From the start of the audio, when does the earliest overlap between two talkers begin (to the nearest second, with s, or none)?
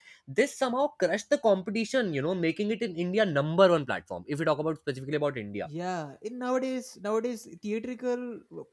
none